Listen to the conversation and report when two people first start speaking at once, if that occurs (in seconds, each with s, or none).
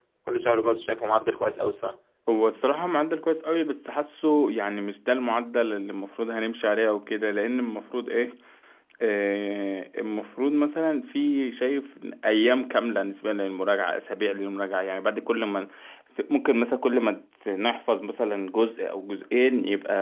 none